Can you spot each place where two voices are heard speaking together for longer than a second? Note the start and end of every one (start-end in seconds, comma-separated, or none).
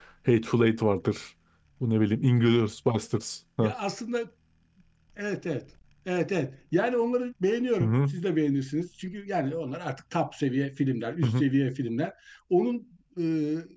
none